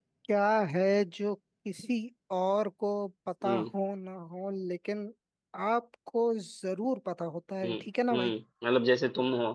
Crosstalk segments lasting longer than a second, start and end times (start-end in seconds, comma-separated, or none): none